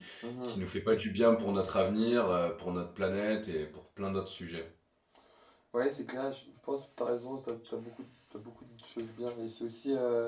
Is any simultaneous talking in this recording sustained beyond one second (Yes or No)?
No